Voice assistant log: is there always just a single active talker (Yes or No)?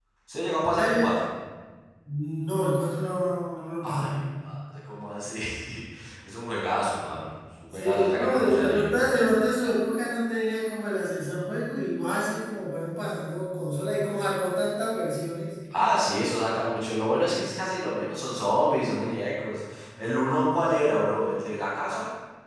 No